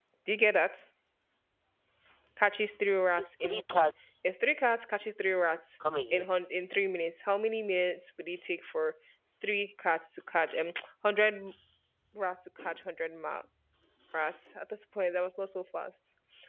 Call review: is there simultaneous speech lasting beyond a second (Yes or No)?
No